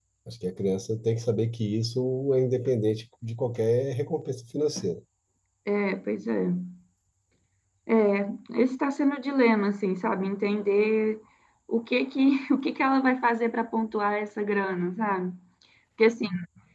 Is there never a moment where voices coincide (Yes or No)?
Yes